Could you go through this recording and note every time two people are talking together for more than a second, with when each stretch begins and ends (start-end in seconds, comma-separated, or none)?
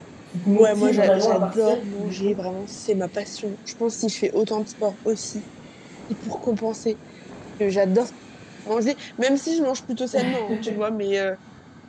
0.6-2.3